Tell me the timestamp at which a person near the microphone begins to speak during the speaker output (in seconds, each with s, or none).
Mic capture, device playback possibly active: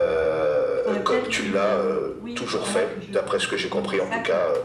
0.8 s